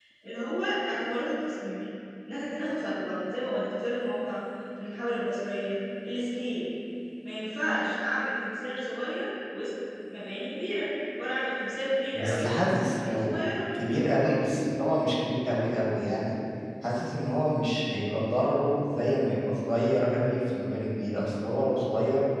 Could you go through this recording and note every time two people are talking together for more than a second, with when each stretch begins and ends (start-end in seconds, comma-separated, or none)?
12.1-13.4